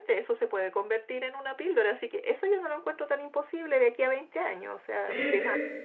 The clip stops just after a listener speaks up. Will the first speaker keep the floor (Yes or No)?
No